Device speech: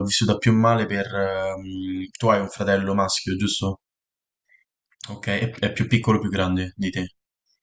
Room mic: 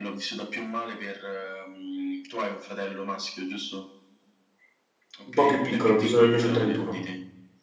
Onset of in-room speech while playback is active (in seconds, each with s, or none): 5.3 s